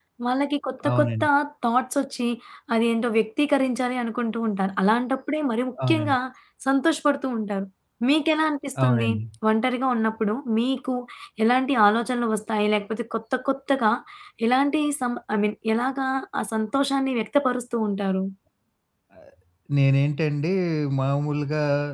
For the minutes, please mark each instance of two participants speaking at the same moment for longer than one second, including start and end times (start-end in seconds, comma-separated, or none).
none